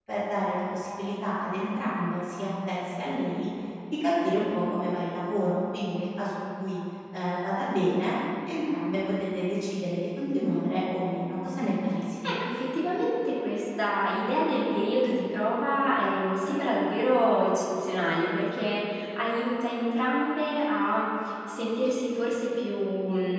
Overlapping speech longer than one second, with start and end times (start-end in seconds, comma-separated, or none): none